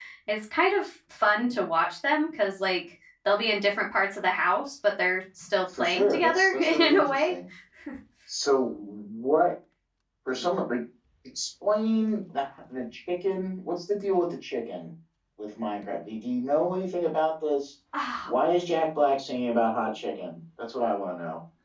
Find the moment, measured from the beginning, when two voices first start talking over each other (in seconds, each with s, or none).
5.7 s